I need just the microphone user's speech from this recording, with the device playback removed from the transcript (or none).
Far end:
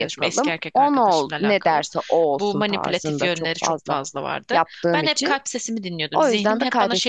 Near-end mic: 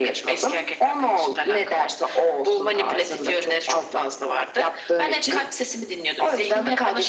none